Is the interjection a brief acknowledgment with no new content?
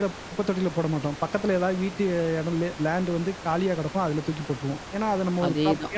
Yes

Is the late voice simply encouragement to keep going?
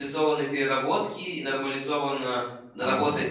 Yes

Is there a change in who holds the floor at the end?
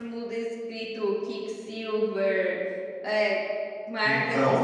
Yes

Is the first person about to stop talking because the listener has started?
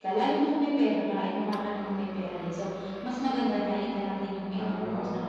Yes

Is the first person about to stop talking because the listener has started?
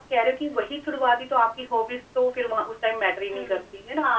Yes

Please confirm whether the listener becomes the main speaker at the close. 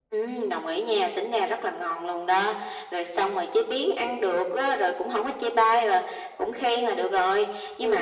No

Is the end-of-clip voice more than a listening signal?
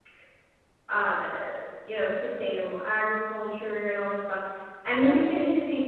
No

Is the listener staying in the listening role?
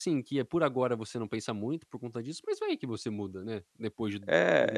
No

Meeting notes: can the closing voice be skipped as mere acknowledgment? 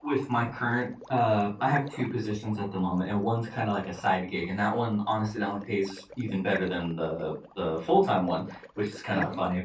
Yes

